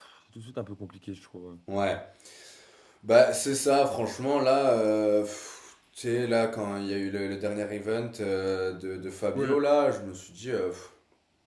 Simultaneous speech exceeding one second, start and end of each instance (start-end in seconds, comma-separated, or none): none